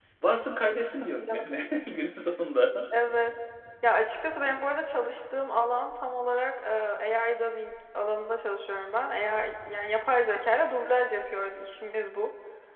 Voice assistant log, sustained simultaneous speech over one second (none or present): none